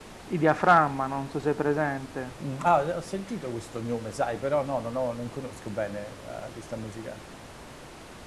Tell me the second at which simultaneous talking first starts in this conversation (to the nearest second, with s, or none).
none